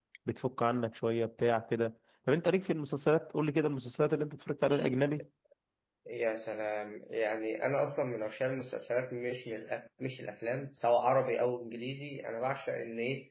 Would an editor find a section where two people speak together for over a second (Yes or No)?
No